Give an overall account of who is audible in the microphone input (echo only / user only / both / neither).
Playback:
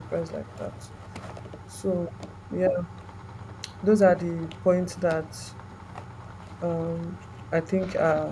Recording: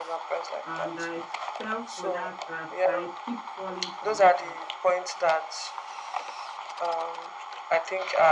both